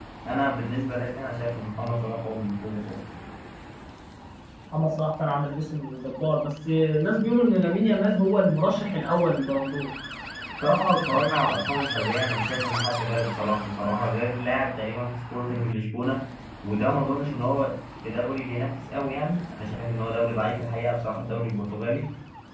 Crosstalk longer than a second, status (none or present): none